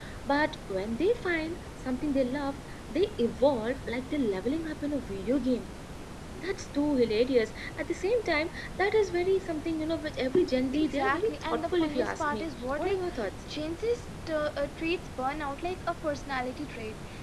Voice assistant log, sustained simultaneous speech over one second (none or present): present